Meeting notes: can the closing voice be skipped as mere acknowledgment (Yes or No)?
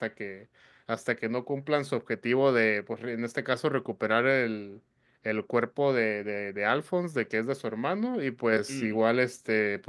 Yes